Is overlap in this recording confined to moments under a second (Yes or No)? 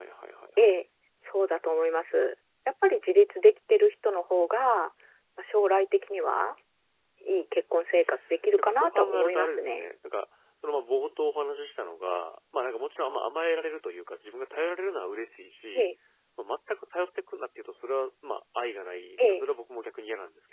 No